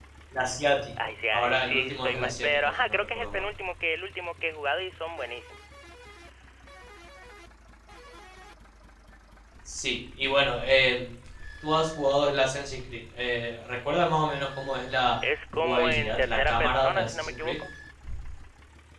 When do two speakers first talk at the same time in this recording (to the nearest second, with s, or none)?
1 s